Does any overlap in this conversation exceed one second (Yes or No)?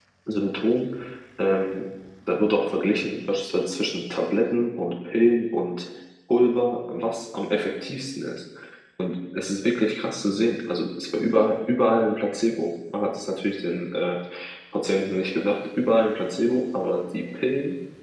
No